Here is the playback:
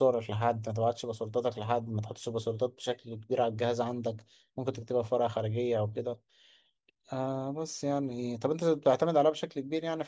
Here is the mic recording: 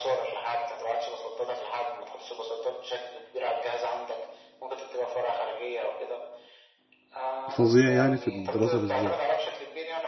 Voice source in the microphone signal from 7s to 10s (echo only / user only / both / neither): both